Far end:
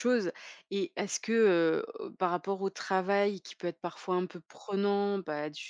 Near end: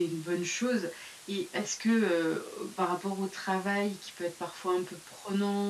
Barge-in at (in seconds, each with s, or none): none